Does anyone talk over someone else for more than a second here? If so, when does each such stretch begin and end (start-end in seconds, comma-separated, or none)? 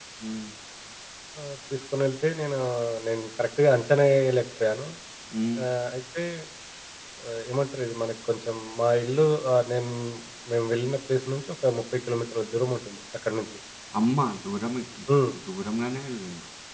none